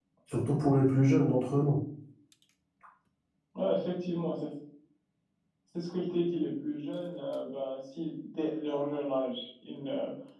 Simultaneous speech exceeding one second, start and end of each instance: none

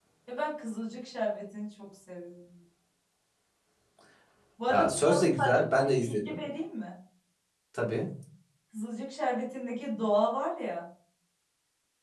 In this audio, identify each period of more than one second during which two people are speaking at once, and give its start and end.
4.7-6.4

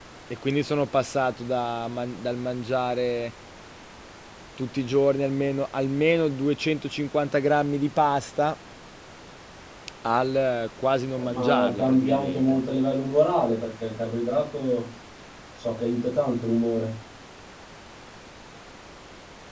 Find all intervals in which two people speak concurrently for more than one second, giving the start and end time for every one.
11.2-12.6

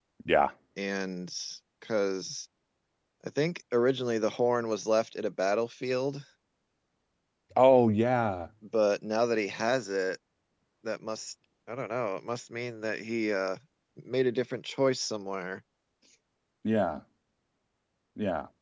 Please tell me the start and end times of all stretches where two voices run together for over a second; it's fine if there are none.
none

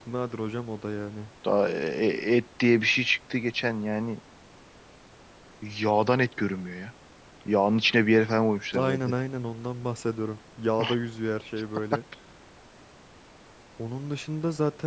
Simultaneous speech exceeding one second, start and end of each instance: none

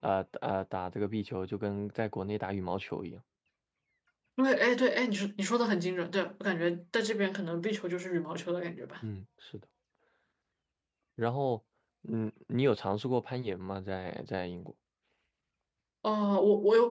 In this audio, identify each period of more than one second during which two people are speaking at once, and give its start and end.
none

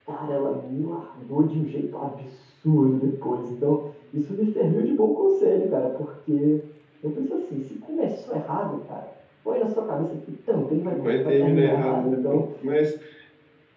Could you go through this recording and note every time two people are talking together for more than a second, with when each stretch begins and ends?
11.0-12.4

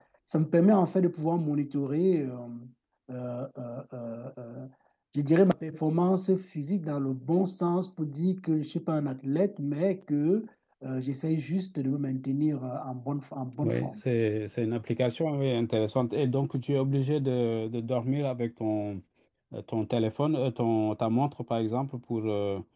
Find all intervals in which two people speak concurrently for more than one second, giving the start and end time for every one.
none

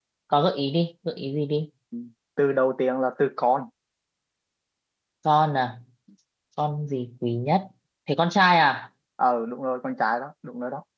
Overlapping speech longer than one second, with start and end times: none

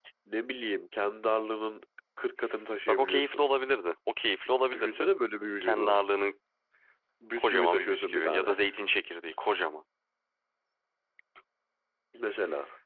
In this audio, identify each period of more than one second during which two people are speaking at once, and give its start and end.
7.4-8.6

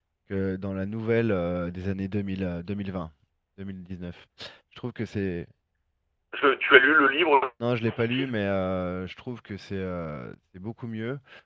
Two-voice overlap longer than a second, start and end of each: none

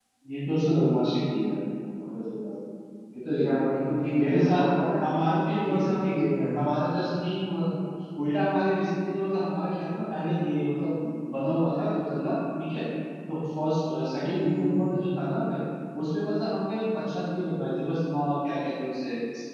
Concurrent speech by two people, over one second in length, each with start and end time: none

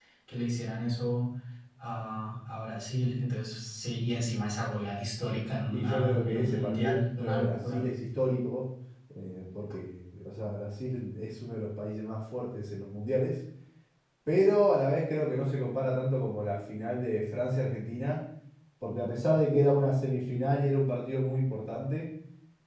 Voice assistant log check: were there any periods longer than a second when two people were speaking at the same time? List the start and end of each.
5.7-7.9

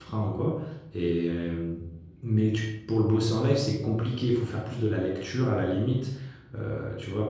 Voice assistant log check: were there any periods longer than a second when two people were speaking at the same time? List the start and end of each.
none

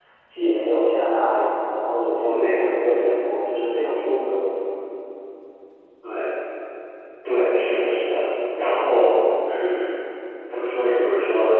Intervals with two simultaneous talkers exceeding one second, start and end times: none

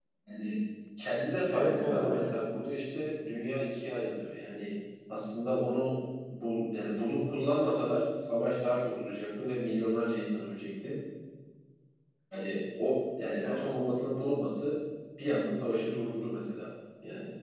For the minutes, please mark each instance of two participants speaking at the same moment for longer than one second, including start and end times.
1.5-2.7

